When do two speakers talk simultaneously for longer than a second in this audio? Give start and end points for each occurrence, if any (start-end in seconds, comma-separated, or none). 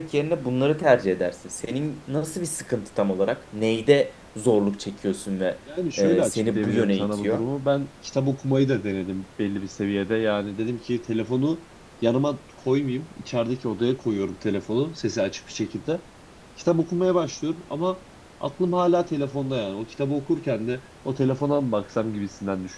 6.0-7.4